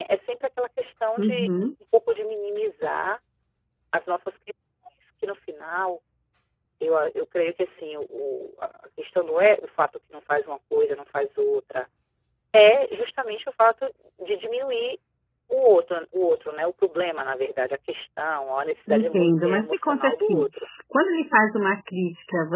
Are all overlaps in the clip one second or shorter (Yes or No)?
No